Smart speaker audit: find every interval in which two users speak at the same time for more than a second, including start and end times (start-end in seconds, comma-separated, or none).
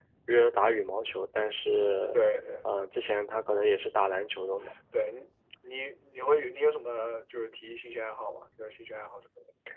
none